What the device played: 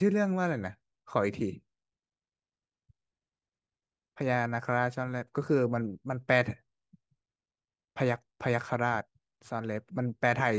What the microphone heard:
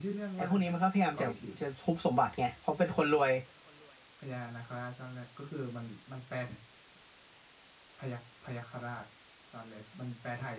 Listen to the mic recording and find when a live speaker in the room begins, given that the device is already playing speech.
0 s

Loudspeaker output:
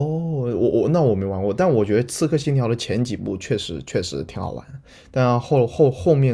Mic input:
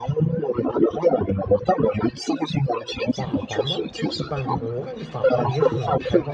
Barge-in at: 3 s

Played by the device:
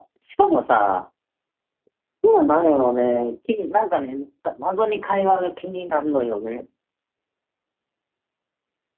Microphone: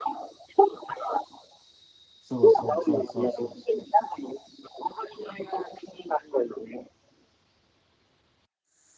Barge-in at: 2 s

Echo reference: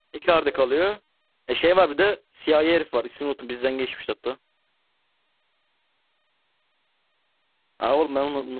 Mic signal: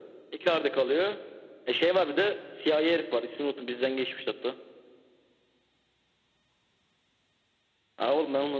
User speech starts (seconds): none

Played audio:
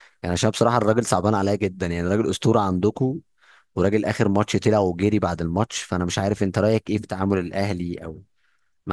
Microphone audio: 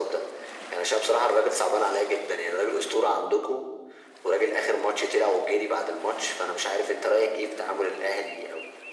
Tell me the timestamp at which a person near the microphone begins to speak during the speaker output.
none

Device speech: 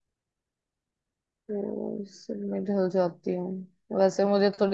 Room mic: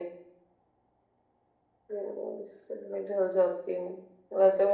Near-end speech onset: none

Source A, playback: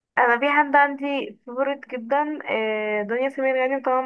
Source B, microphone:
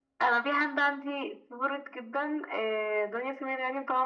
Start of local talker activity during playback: none

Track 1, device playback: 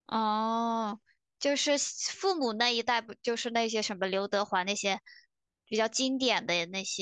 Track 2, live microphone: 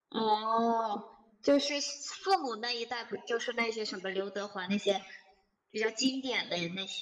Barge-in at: none

